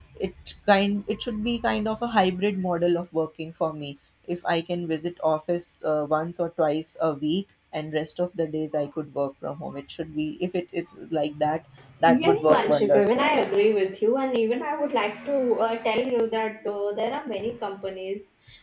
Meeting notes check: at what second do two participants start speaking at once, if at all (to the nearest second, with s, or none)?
12 s